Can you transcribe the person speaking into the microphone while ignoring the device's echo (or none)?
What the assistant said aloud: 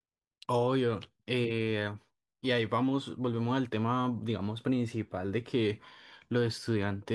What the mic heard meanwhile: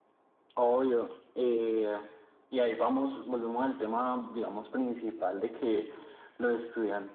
none